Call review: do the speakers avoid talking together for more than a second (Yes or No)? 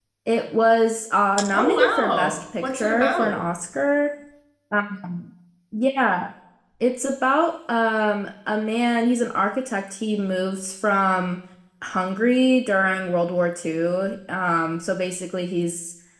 No